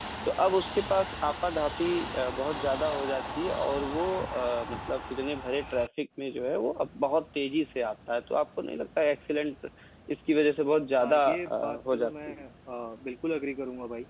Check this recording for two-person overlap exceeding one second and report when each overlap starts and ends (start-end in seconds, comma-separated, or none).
11.0-12.4